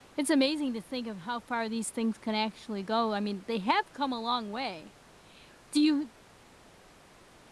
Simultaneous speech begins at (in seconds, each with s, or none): none